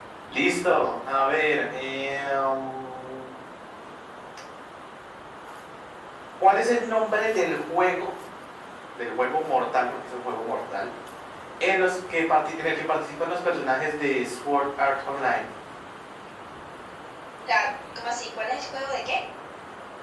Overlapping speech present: No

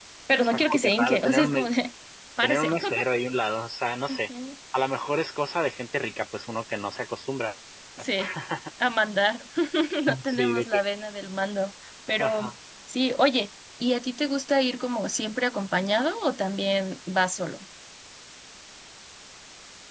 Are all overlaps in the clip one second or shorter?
No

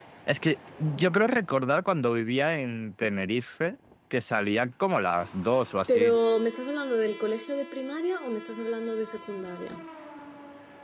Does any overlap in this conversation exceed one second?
No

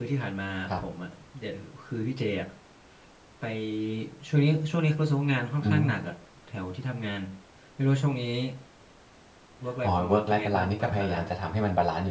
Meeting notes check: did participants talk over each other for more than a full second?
Yes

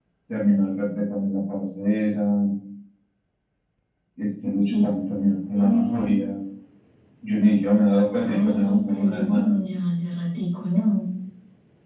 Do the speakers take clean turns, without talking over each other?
No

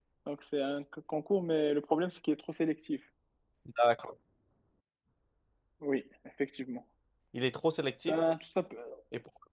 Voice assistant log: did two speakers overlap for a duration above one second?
No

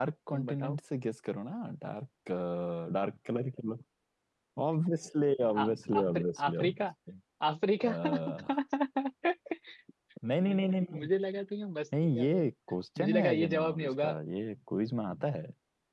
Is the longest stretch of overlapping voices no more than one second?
No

